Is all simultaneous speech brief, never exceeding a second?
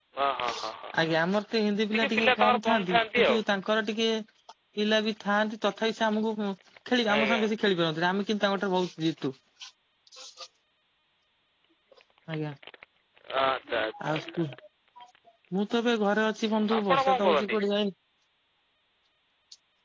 No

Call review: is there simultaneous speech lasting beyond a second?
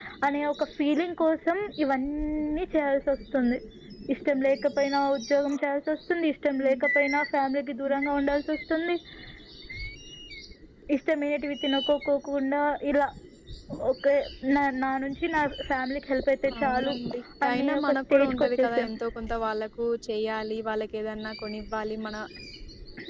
Yes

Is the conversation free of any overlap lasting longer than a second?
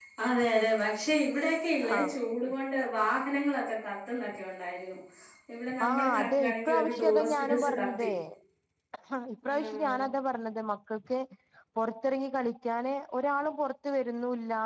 No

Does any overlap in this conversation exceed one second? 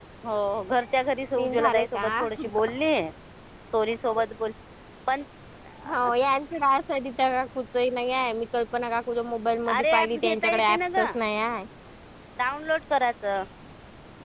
Yes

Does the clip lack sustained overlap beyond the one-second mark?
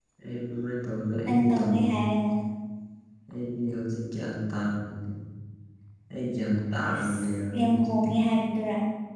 No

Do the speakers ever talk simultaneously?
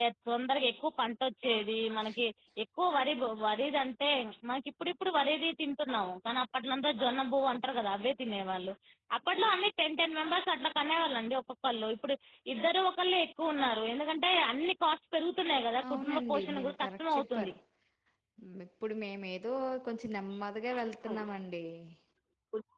Yes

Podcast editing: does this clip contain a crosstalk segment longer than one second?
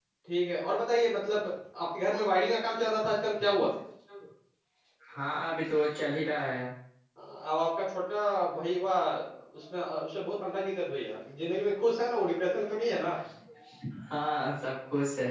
No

